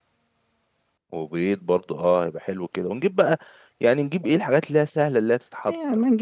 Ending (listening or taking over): taking over